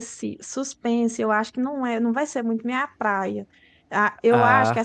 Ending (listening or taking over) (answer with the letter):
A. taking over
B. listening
B